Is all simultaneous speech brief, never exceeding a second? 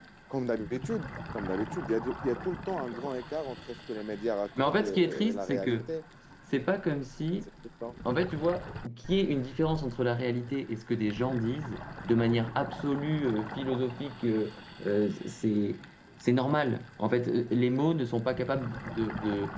No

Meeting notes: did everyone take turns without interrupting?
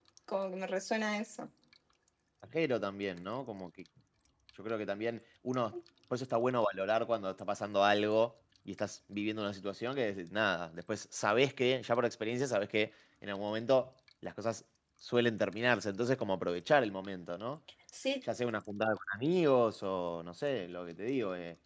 Yes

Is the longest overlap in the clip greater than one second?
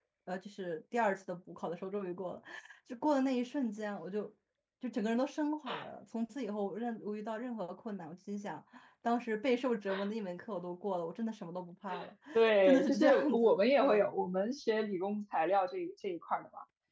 Yes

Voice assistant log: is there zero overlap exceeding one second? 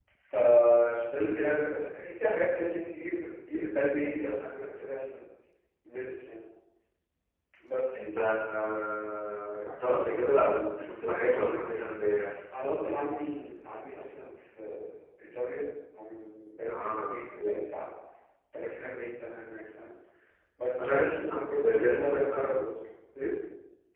No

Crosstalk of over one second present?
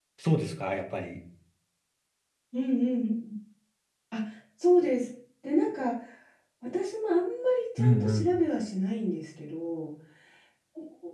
No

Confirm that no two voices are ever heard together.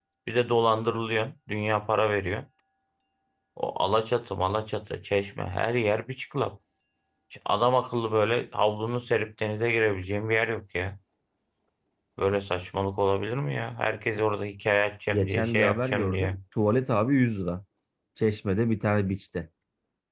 No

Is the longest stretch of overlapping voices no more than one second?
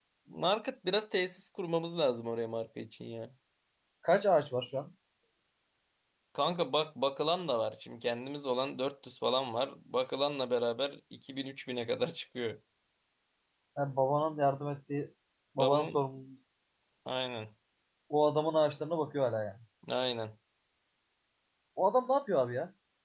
Yes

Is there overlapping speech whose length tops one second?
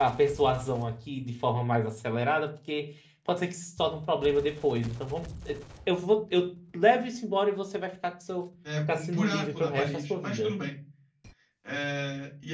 Yes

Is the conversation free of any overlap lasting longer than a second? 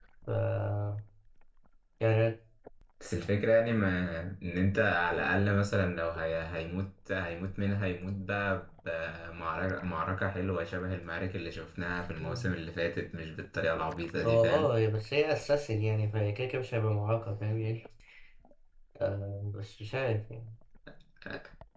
Yes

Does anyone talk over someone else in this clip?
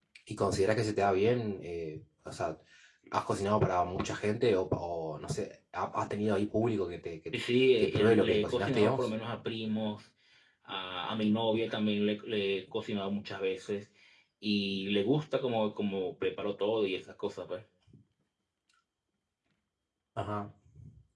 Yes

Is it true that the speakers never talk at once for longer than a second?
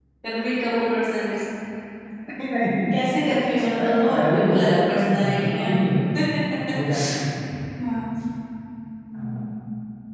No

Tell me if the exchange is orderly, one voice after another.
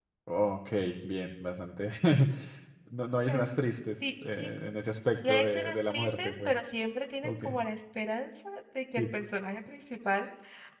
No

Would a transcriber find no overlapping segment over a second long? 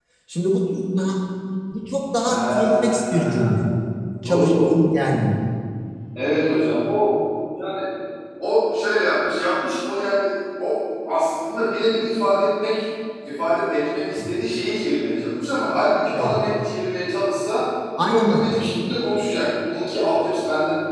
No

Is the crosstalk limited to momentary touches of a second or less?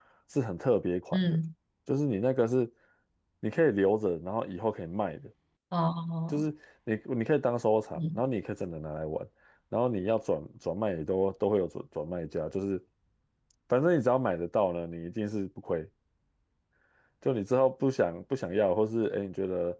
Yes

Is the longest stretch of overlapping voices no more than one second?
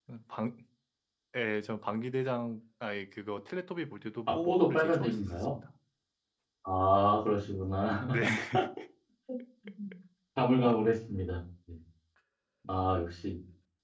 No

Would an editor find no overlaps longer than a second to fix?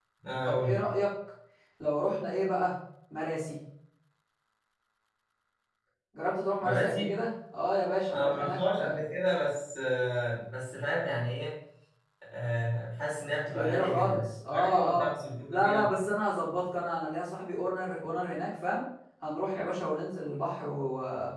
No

